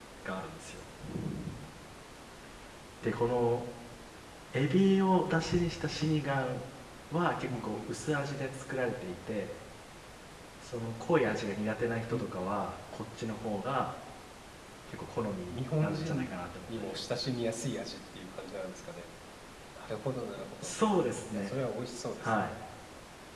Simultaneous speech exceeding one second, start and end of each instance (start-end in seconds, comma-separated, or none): 15.5-17.2